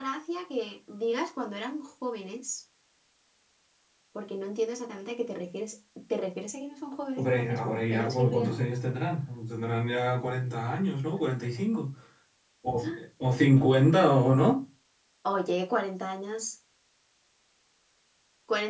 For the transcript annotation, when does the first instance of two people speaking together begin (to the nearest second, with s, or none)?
7 s